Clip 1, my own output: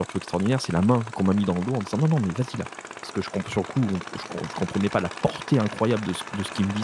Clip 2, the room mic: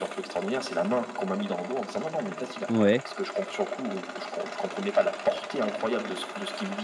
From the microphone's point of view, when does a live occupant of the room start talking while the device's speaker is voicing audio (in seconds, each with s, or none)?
2.7 s